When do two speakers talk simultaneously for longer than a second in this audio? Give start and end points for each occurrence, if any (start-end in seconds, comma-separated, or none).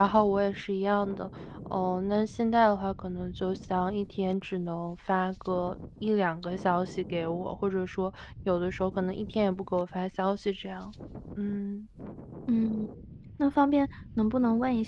none